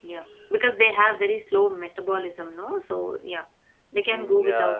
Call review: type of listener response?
taking over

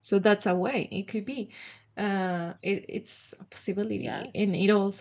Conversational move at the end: listening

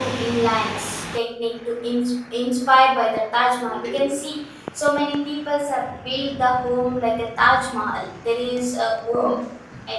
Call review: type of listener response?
listening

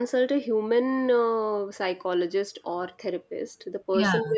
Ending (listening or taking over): listening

